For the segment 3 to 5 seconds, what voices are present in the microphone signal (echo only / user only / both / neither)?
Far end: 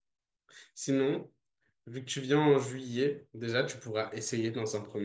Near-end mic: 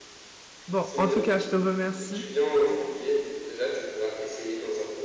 echo only